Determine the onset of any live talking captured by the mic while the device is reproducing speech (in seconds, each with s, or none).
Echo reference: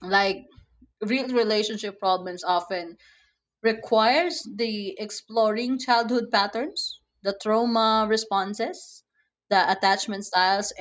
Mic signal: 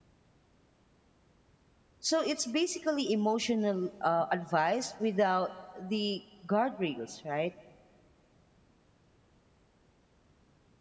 2.0 s